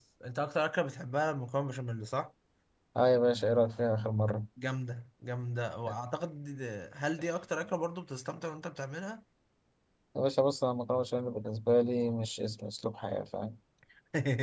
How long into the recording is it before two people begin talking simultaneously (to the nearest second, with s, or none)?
none